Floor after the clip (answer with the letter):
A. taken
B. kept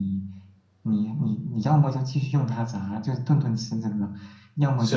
B